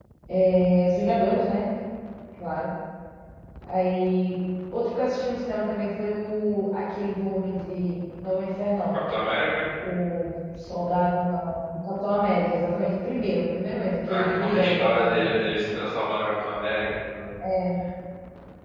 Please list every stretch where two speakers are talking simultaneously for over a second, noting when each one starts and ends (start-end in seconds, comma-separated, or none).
14.1-15.6